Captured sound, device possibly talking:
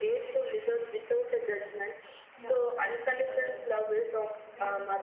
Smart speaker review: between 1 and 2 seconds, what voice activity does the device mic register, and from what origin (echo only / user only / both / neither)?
echo only